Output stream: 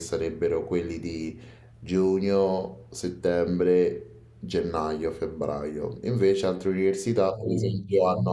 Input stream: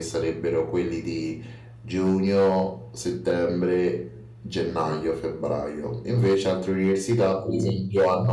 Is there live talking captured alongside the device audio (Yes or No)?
Yes